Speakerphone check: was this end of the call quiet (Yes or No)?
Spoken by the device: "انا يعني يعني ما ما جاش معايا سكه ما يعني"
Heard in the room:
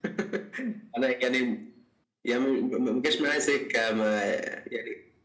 Yes